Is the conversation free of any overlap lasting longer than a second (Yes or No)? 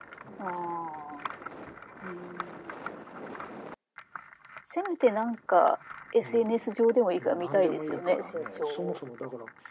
No